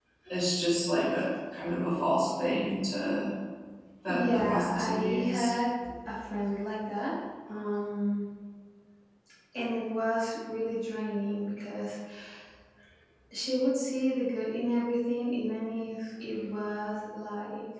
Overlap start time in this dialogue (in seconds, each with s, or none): 4.0 s